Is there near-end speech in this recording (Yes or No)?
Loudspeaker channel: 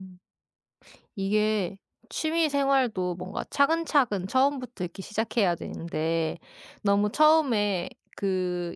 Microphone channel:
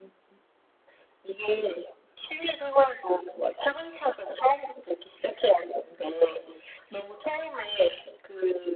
No